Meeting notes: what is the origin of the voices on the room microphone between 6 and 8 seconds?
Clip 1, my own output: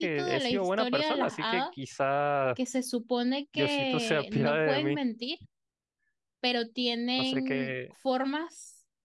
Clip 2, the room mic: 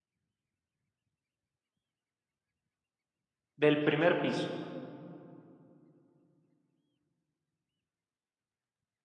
neither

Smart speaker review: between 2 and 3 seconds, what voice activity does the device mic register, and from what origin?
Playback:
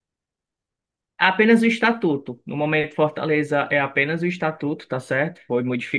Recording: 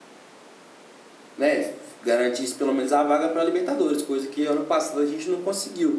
user only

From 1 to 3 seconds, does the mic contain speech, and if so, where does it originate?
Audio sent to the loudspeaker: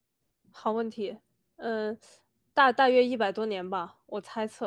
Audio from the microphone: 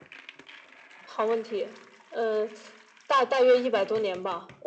echo only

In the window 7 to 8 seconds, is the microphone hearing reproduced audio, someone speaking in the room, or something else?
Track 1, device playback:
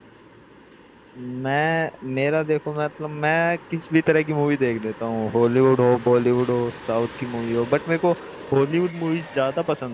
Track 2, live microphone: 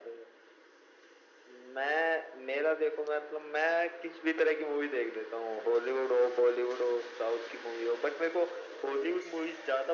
echo only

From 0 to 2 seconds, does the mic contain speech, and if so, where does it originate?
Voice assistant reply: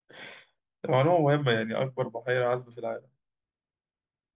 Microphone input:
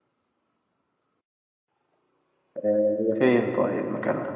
neither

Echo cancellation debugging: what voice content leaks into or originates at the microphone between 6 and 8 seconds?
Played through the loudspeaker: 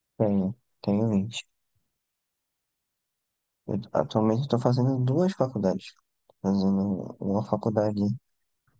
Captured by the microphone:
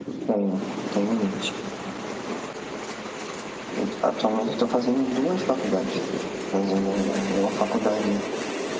echo only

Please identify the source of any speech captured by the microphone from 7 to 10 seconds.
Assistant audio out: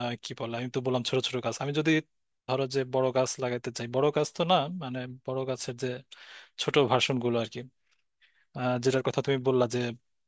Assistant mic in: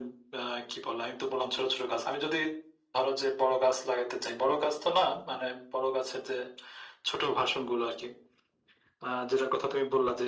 echo only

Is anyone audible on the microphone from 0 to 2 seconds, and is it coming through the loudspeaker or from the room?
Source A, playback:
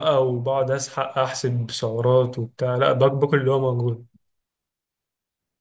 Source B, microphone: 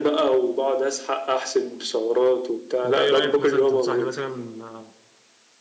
echo only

